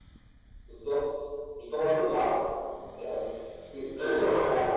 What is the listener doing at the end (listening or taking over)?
taking over